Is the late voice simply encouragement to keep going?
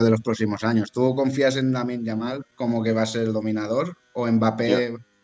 Yes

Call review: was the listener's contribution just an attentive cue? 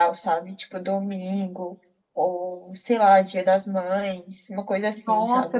No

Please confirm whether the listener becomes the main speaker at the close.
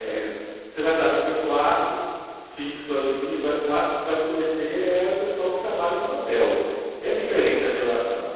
No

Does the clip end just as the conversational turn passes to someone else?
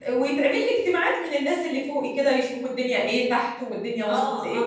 Yes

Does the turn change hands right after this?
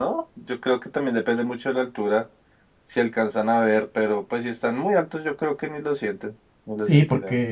Yes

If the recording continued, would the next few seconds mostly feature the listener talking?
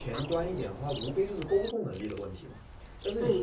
Yes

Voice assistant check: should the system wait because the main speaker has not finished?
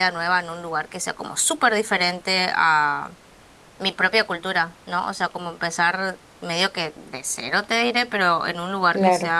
Yes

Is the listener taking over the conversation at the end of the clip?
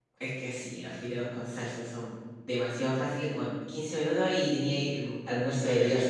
Yes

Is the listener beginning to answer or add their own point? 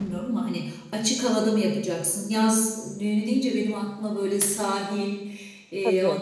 No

